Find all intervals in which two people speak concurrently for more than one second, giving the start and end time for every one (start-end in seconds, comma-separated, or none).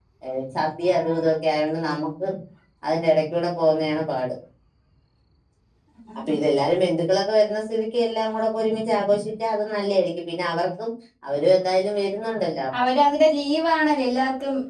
none